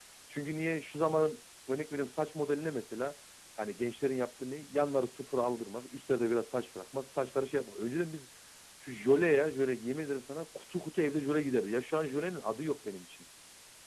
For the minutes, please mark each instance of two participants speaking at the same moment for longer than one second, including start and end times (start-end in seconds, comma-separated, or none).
none